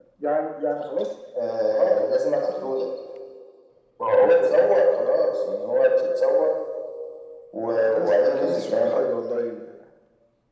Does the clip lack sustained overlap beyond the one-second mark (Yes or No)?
No